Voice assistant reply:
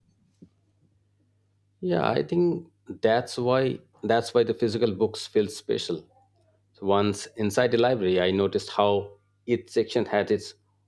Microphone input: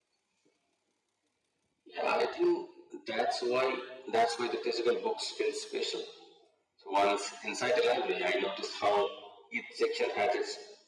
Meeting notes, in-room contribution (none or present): none